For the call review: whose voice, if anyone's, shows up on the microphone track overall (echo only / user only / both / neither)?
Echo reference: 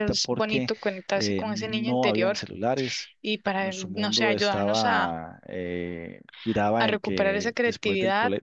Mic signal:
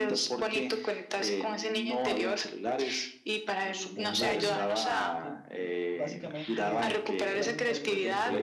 both